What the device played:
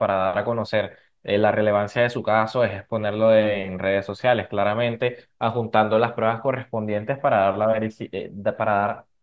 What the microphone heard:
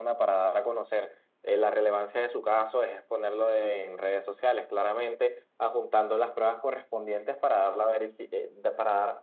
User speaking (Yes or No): No